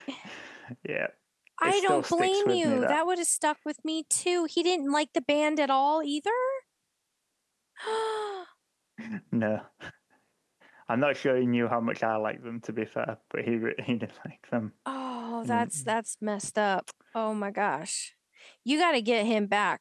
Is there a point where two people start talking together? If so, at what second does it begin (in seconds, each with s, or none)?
1.6 s